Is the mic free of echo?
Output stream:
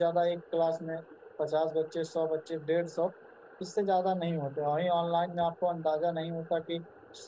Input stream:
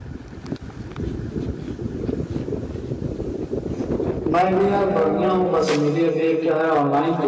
Yes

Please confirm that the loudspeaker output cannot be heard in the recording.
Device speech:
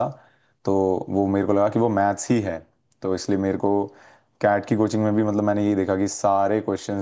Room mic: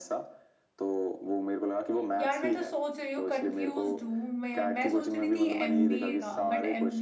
No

